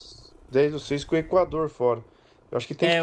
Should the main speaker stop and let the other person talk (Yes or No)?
Yes